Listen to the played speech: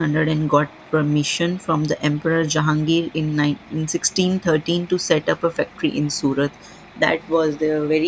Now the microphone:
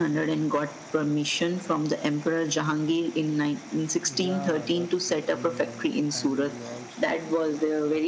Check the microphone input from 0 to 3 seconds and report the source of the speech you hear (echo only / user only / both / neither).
echo only